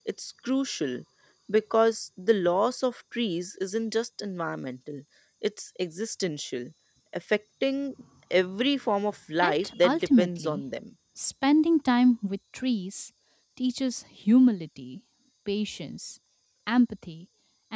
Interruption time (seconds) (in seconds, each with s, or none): 9.4 s